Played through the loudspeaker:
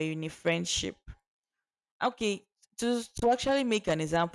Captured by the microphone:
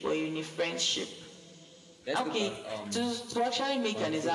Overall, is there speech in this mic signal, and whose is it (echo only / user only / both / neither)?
both